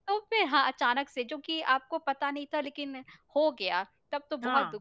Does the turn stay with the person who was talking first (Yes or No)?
Yes